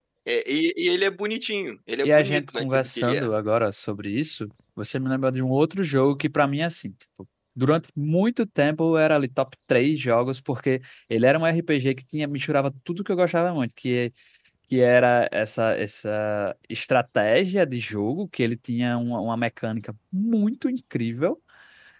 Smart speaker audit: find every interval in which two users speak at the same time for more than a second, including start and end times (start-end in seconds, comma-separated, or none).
2.0-3.3